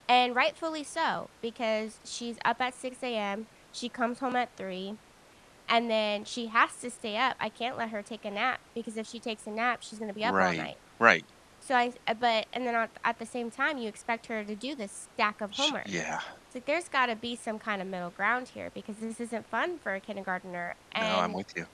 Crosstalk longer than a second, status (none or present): none